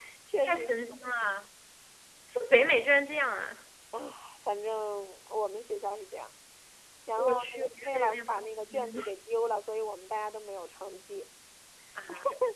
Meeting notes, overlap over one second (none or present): present